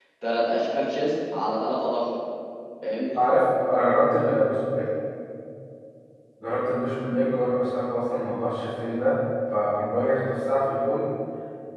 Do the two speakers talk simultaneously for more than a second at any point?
No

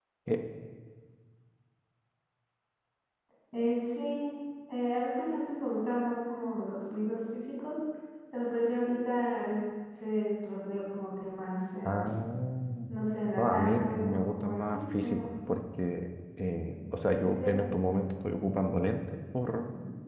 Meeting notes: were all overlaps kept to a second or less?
No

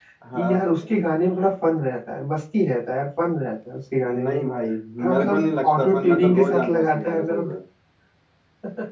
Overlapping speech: Yes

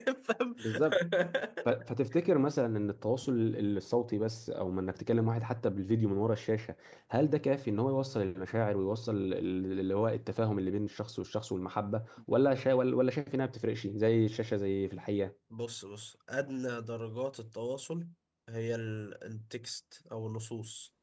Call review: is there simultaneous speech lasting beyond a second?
No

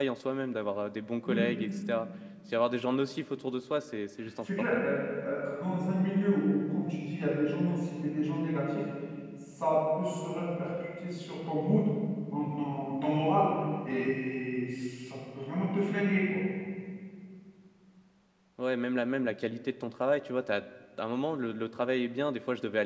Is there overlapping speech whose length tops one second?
No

